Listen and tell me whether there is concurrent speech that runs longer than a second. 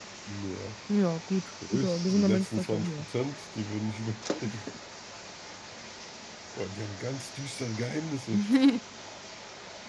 Yes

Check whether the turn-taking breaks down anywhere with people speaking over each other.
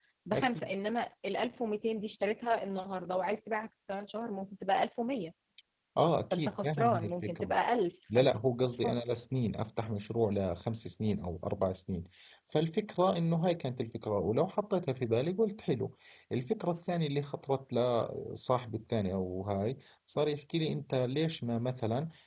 Yes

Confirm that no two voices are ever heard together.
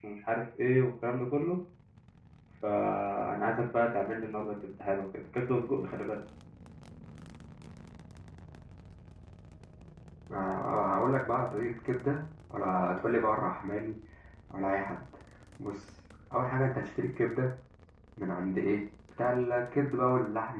Yes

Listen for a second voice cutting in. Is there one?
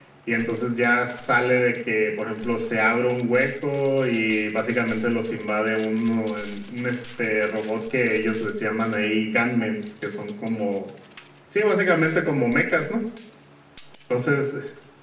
No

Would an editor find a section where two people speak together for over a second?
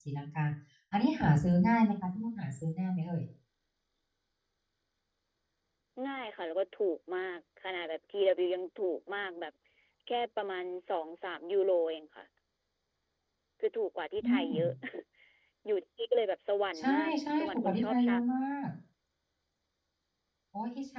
Yes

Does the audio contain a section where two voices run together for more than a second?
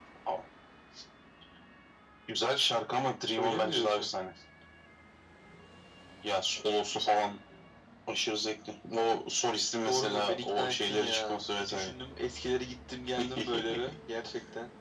Yes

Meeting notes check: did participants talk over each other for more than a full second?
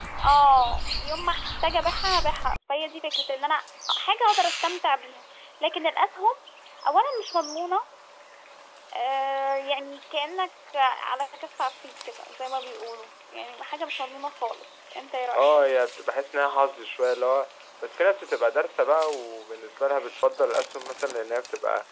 No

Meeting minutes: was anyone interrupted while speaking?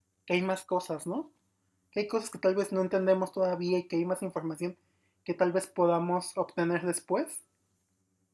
No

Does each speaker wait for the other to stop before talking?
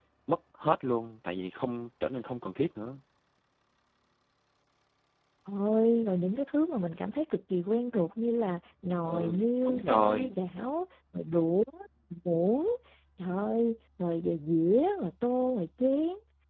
No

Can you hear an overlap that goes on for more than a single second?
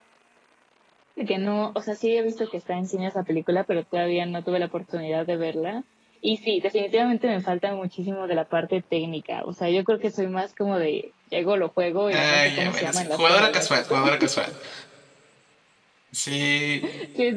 Yes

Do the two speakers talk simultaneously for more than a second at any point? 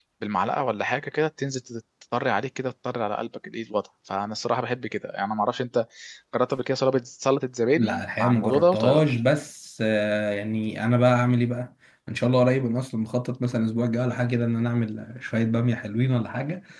Yes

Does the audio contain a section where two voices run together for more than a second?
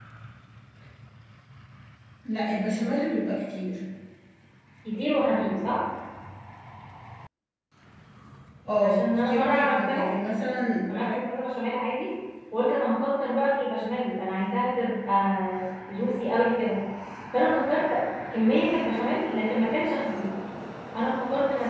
Yes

